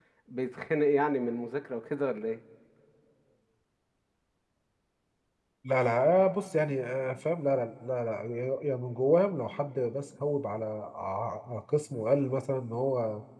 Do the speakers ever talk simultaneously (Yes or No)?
No